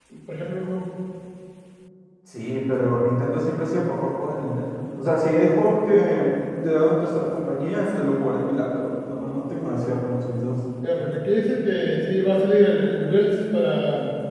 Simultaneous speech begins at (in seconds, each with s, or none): none